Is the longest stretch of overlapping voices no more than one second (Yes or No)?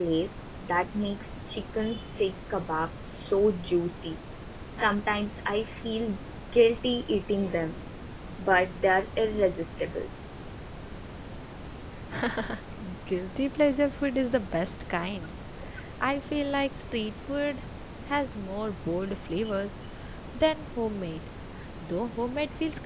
Yes